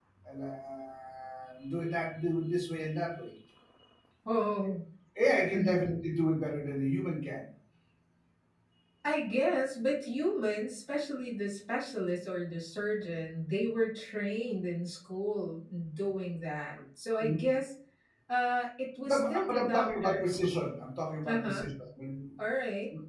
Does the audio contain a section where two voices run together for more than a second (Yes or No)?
Yes